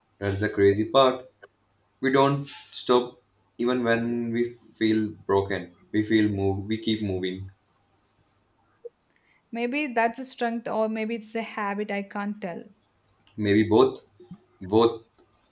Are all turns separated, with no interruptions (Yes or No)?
Yes